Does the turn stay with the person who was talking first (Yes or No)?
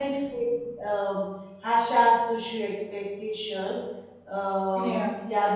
Yes